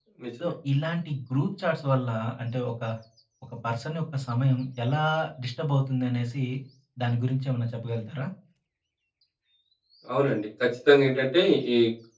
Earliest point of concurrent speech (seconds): none

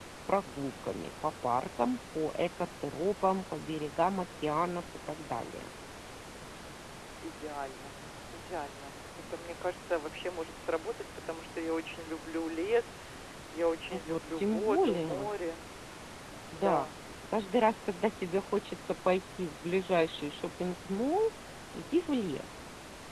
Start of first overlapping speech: 13.9 s

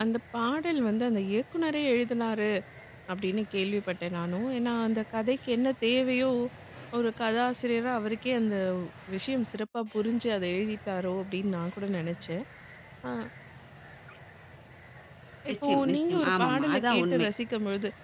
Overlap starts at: 15.5 s

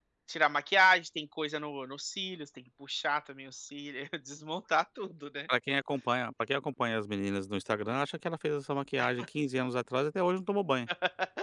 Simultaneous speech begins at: none

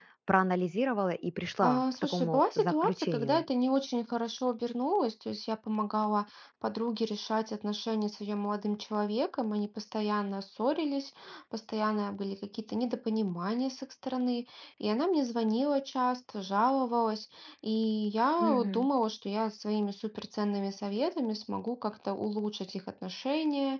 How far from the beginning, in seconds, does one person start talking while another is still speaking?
1.6 s

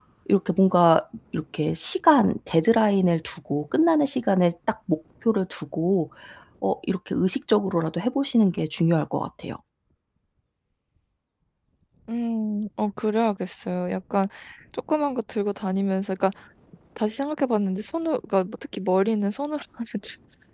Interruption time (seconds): none

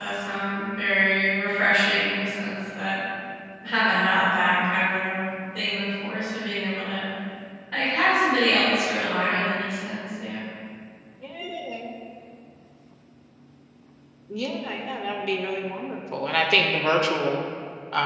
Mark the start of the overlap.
none

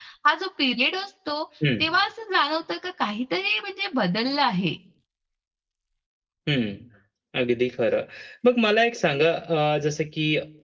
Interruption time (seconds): none

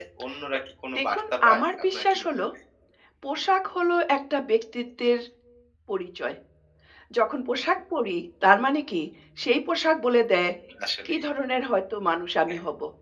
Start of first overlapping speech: 1.0 s

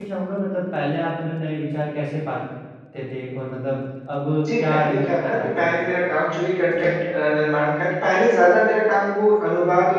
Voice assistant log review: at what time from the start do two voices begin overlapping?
4.5 s

